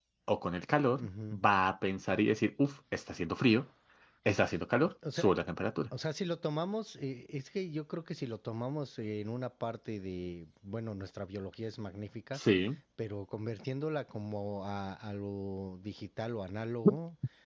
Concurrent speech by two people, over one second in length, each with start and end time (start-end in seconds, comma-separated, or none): none